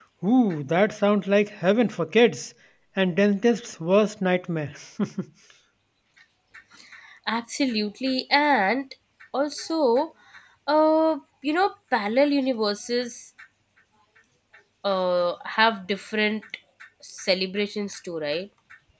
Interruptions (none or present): none